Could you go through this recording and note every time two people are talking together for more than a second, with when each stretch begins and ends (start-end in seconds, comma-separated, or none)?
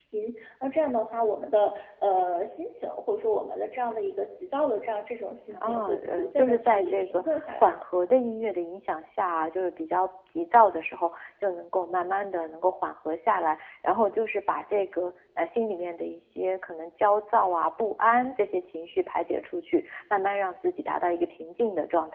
5.6-7.8